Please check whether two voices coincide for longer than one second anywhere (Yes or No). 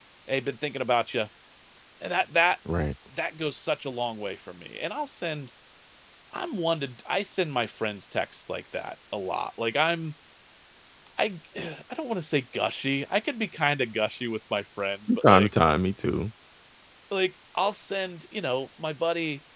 No